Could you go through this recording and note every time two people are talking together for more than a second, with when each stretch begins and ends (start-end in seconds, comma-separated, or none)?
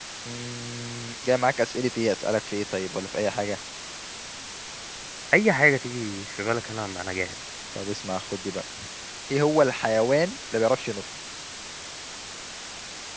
none